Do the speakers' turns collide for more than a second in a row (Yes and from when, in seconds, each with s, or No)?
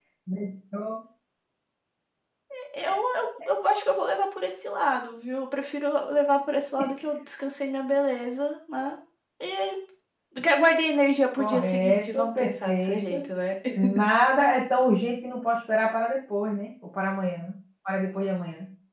Yes, from 11.3 s